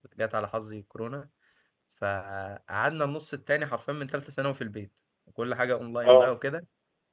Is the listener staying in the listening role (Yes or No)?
Yes